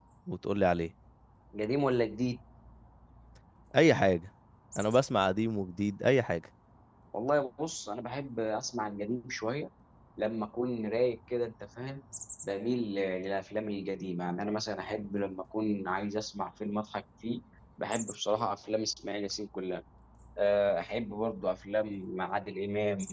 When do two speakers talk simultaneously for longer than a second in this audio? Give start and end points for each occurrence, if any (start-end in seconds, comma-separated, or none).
none